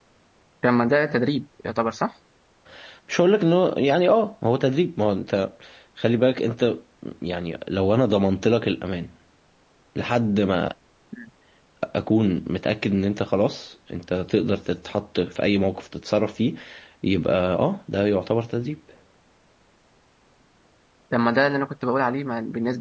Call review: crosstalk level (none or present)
none